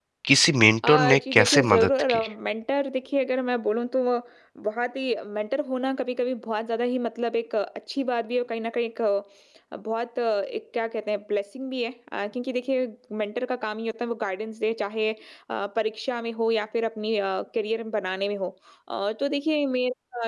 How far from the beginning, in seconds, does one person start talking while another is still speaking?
1 s

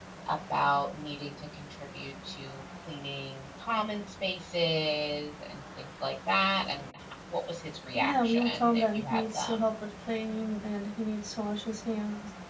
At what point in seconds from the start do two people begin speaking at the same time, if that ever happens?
8 s

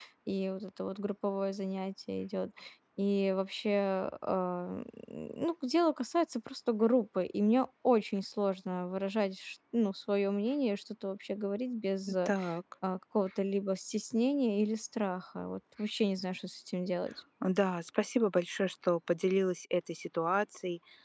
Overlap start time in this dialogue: none

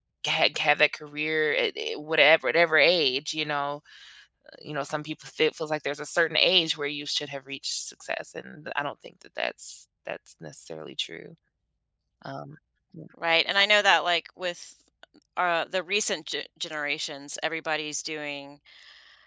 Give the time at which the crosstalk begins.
none

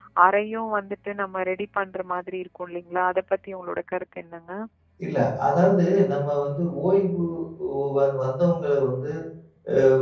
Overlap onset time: none

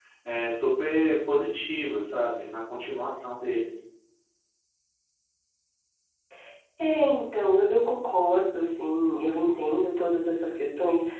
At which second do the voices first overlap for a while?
none

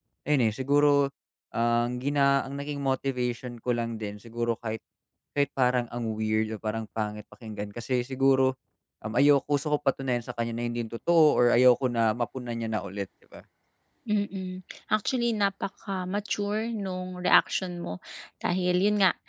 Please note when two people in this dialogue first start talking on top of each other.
none

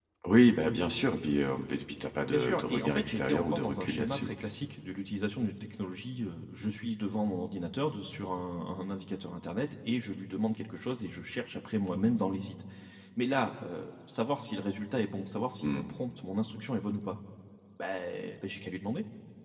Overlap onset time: 2 s

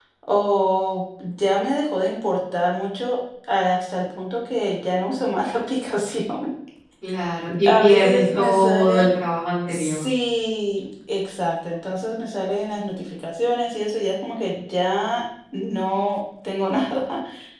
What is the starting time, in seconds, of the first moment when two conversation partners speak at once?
8 s

